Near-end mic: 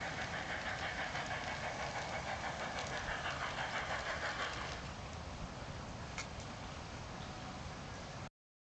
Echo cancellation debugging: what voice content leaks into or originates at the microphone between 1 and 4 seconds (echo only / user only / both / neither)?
neither